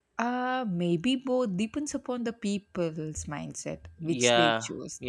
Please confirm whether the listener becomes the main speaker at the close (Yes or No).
Yes